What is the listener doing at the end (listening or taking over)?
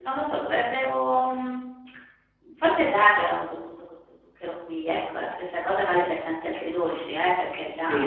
taking over